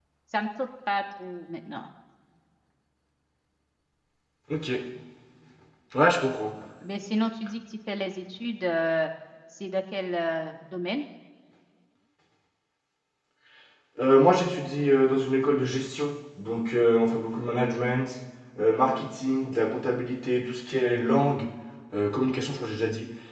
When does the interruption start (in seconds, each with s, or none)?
none